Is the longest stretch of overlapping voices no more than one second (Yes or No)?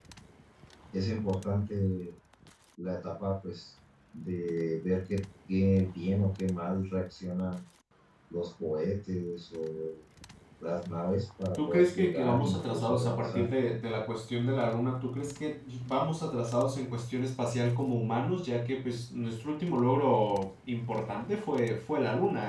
No